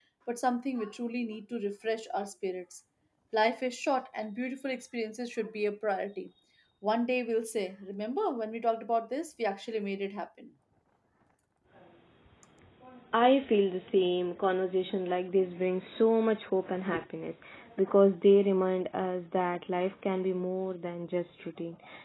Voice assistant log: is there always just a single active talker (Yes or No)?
Yes